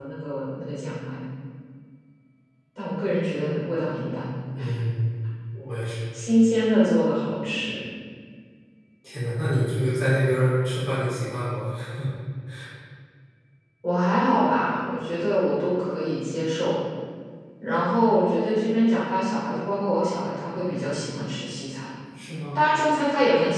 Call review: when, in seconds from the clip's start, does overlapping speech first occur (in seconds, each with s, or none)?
none